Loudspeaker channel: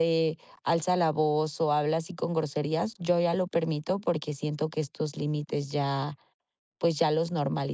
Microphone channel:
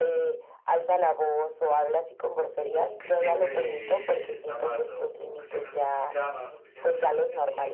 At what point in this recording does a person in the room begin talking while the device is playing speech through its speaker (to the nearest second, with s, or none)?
3 s